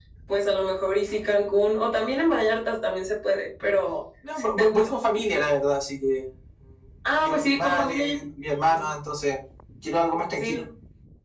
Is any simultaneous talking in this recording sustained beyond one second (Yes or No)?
Yes